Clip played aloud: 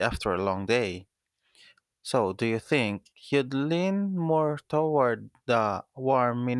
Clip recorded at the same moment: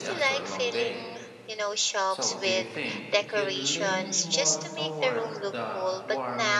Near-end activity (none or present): present